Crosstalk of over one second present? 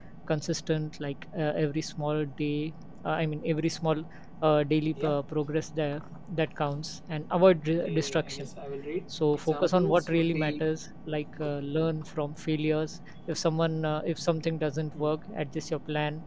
Yes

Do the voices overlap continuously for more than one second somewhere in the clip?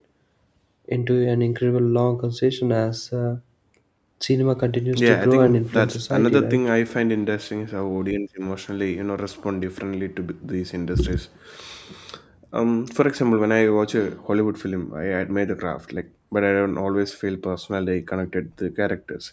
Yes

